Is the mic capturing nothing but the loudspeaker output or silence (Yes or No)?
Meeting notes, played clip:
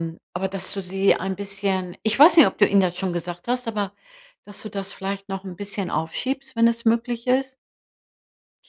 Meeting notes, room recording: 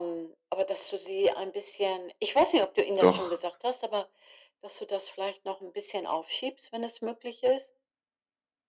No